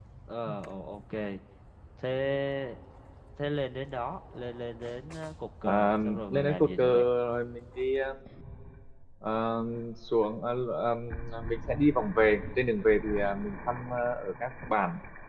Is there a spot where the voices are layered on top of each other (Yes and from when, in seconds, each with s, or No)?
Yes, from 5.6 s